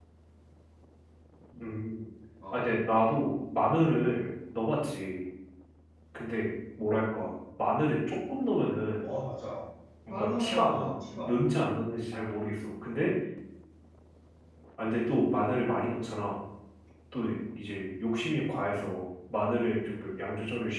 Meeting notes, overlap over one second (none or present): present